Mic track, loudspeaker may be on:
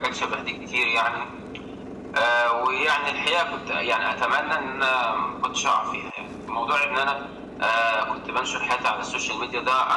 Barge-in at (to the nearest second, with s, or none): none